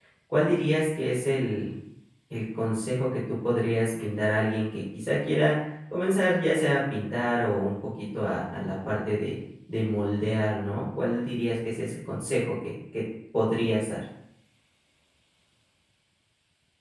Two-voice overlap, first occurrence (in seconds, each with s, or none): none